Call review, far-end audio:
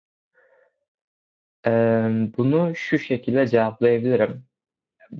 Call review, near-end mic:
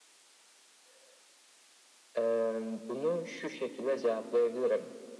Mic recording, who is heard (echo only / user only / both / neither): echo only